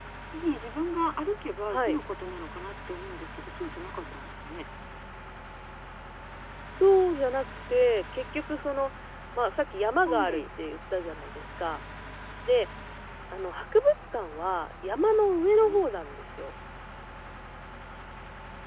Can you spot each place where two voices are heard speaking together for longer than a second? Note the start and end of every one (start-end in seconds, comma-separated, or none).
none